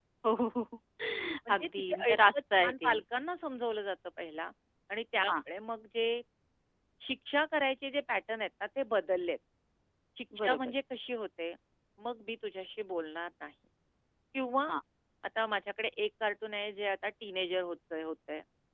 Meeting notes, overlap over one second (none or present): present